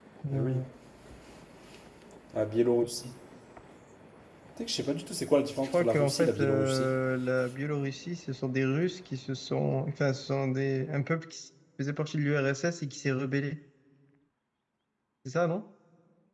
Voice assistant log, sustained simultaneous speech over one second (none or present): present